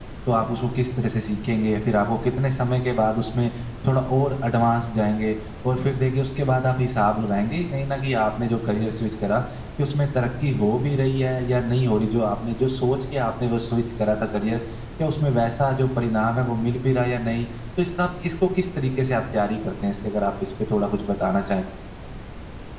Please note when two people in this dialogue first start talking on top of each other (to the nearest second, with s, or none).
none